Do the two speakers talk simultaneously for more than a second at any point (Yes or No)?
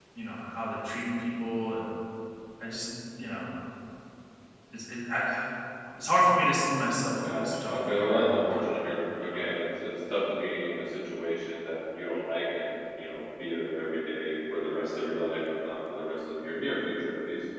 Yes